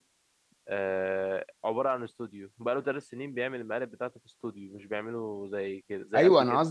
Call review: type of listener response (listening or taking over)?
taking over